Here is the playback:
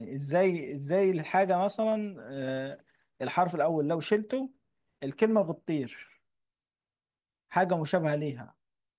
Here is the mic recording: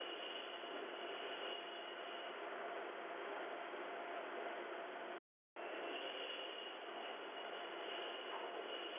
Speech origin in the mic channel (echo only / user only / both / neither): neither